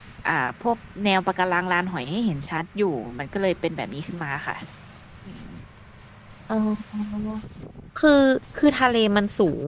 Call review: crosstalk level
none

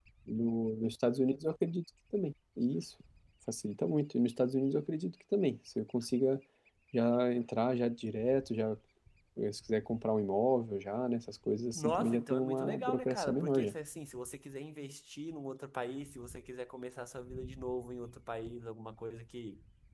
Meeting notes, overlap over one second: present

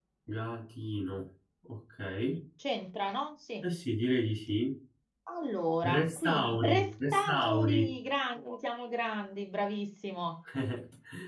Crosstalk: present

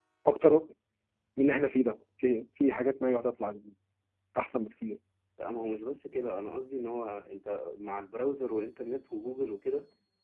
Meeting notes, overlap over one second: none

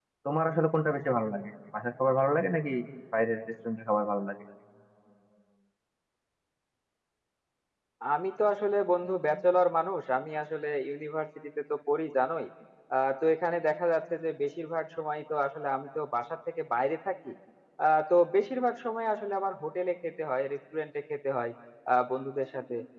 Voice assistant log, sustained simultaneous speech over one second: none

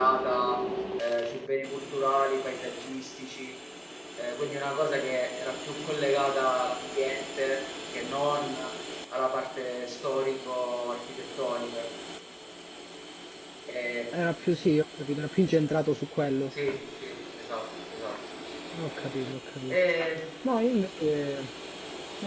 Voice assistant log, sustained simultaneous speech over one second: none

